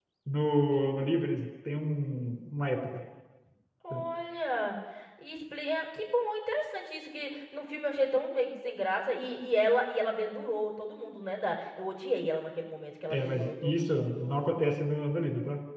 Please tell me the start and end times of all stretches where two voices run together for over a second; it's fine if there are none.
13.1-14.4

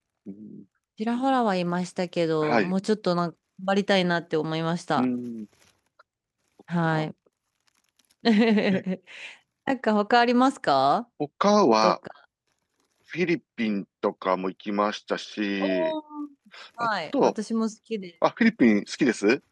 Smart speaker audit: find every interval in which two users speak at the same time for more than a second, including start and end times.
none

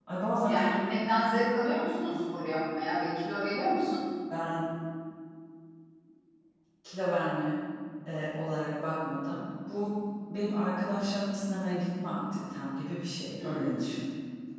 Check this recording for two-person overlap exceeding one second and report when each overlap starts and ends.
none

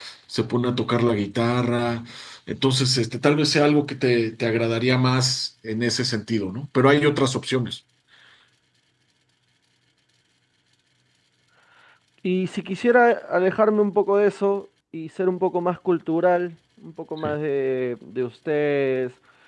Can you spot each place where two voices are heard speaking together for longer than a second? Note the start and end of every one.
none

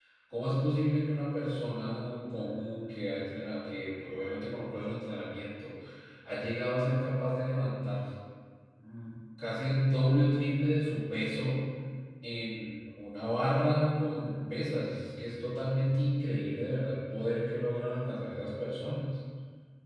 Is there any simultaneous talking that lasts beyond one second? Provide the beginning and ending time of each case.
none

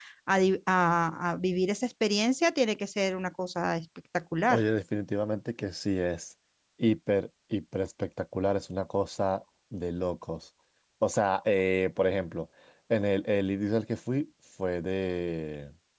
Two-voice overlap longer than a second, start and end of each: none

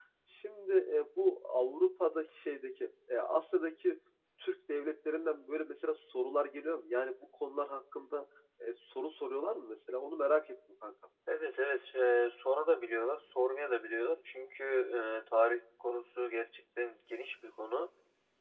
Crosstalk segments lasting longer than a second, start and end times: none

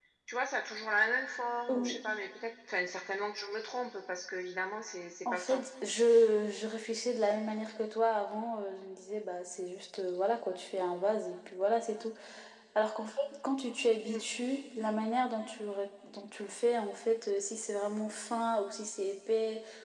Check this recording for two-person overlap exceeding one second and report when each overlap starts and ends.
none

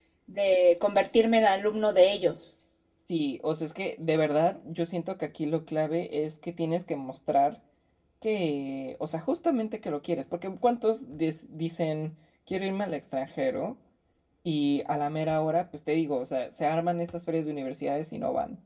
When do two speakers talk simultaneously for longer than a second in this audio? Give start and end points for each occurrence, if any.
none

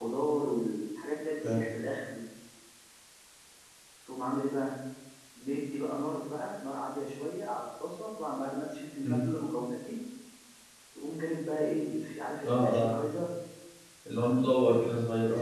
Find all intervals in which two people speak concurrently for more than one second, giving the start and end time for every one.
none

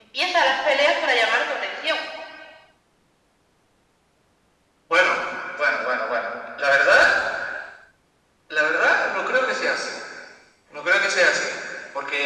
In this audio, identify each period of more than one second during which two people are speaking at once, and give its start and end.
none

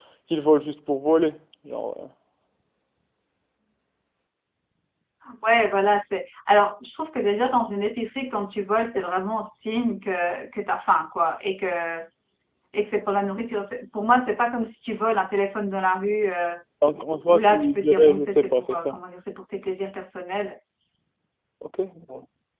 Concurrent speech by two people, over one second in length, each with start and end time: 17.3-18.9

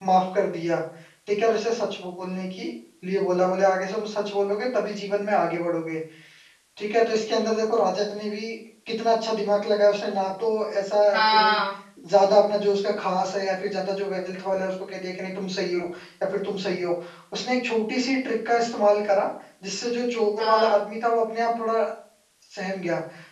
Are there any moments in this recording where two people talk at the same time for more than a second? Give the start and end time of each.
none

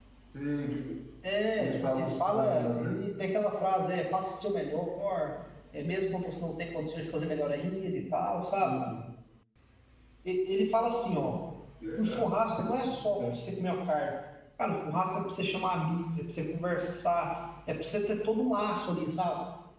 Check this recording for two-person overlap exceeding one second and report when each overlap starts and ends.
1.6-3.0

